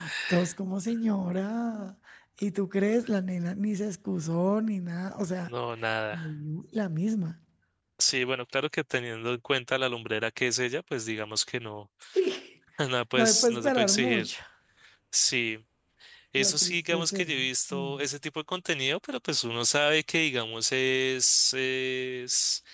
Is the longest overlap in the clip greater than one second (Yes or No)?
Yes